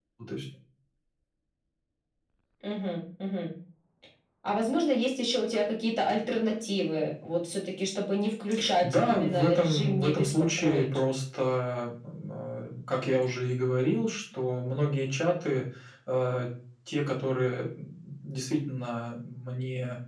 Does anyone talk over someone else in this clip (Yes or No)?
Yes